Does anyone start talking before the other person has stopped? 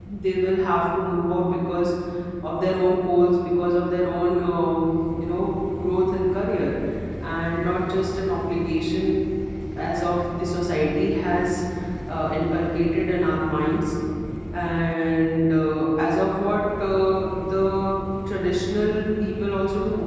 No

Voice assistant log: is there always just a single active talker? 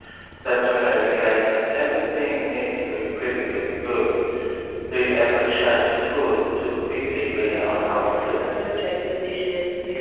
No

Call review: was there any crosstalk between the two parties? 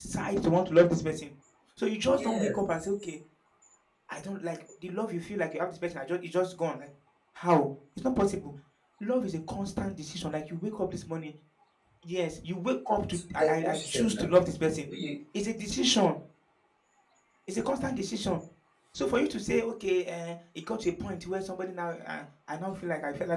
Yes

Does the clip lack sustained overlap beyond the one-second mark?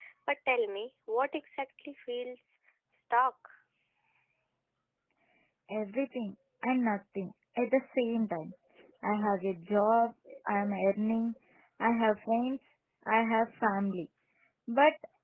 Yes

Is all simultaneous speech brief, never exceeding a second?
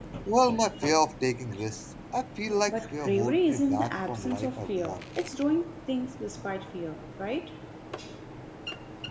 No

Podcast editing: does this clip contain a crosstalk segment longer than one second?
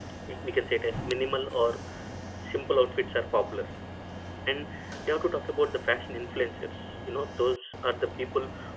No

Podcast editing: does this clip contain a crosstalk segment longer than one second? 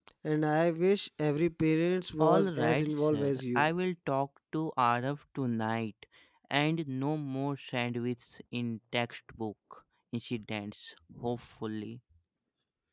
Yes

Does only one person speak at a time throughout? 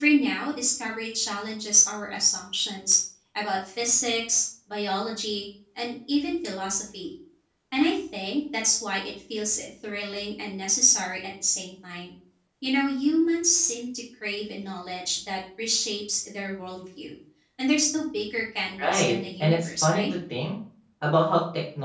No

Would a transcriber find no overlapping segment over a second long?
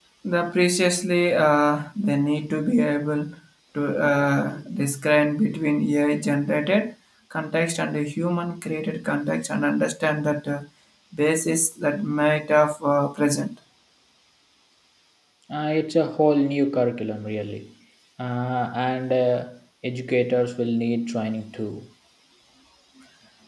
Yes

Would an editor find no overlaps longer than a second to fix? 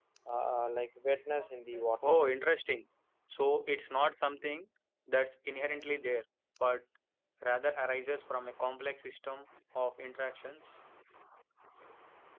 Yes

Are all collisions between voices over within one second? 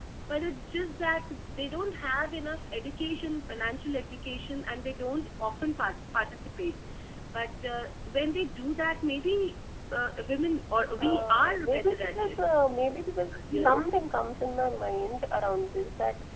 No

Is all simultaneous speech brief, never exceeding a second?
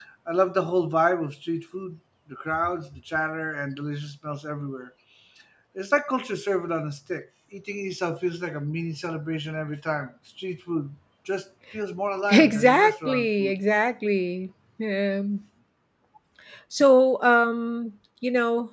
No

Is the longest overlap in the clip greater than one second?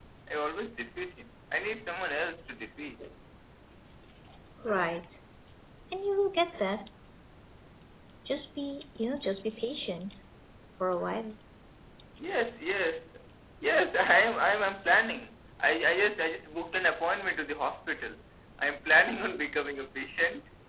No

